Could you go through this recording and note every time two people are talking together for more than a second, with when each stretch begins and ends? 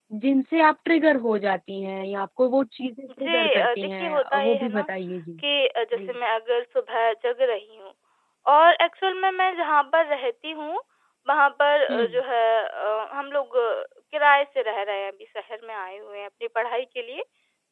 3.2-4.9

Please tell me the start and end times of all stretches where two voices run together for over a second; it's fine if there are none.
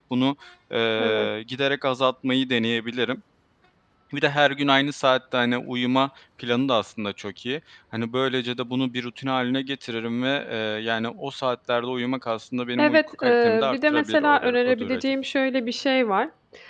12.8-15.0

